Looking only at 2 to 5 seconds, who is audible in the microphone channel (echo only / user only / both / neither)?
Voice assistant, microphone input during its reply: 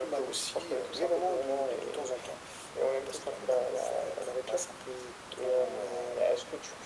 echo only